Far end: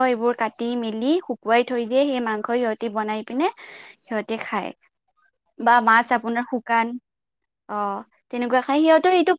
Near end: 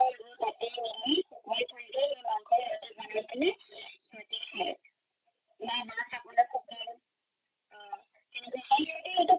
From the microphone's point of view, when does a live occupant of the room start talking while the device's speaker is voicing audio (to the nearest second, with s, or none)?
none